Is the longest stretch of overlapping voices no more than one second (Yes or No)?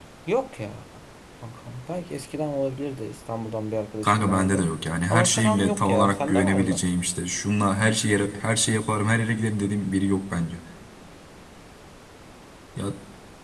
No